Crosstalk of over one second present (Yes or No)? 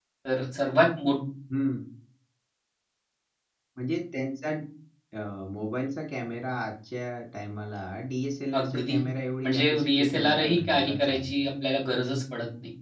Yes